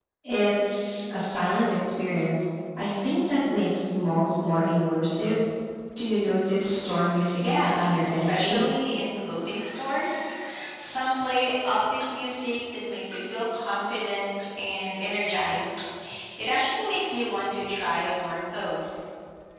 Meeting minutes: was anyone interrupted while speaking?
Yes, from 7.4 s

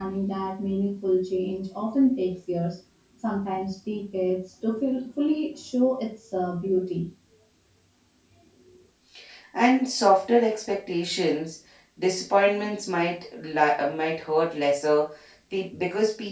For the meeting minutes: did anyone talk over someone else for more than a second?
No

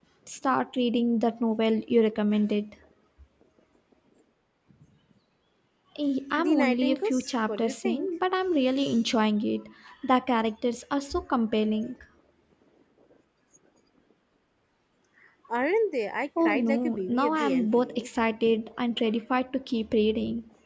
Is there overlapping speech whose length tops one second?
Yes, from 6.4 s

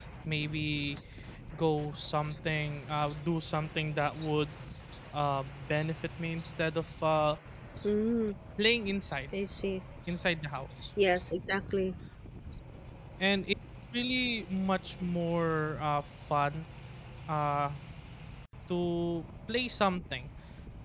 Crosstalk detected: No

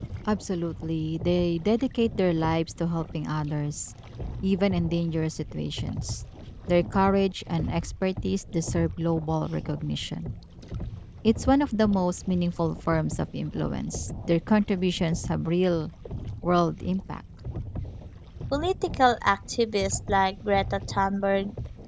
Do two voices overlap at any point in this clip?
No

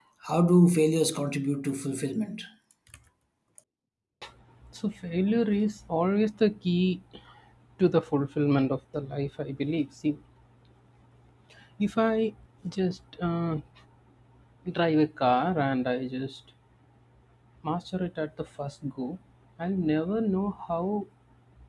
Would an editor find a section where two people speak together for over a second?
No

